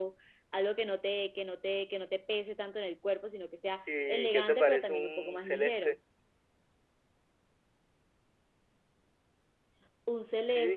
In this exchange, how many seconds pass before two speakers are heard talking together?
4.1 s

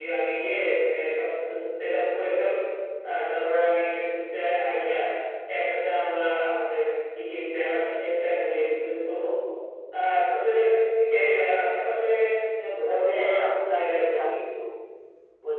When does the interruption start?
13.0 s

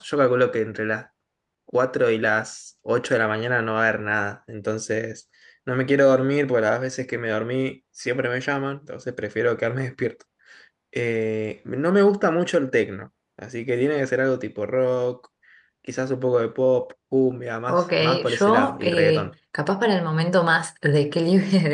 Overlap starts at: 17.7 s

